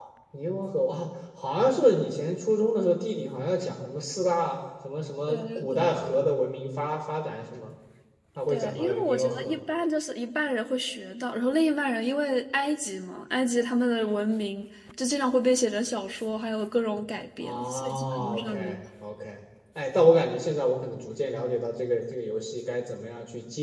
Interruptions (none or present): present